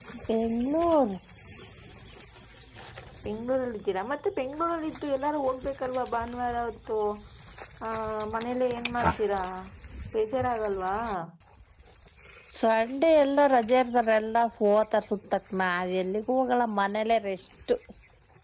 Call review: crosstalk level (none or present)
none